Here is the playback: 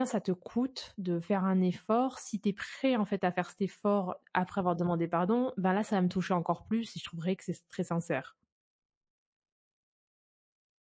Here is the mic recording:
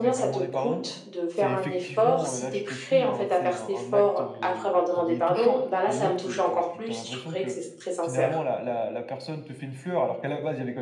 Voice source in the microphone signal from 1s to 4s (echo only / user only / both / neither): both